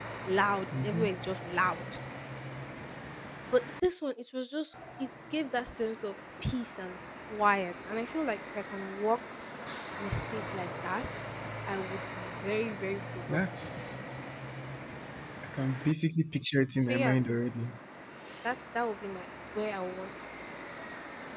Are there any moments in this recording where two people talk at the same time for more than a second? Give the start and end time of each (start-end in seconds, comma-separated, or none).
none